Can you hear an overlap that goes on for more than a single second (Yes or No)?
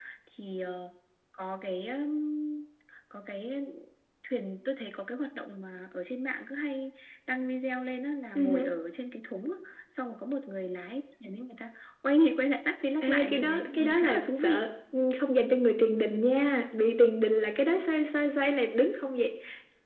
Yes